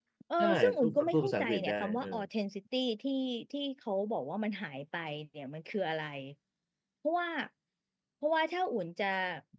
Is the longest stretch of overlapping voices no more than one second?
No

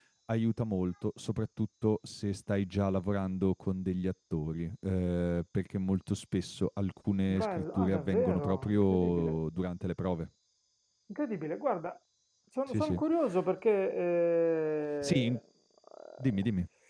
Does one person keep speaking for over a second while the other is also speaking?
Yes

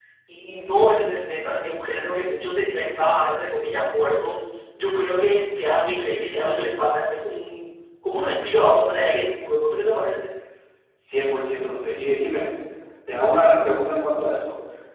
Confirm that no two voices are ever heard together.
Yes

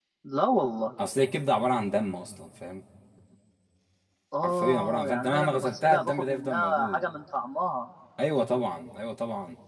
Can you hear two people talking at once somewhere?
Yes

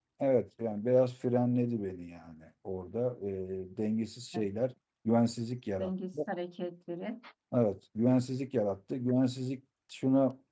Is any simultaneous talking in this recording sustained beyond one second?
No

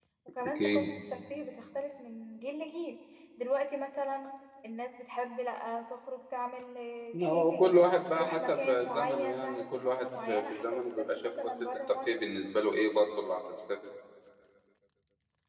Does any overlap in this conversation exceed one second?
Yes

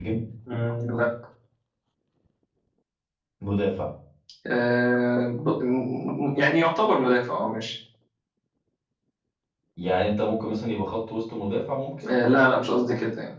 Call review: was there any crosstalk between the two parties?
No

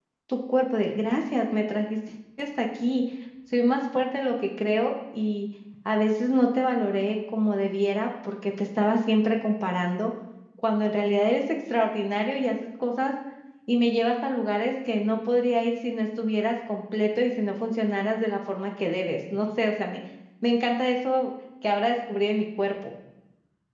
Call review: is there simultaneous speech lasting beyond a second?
No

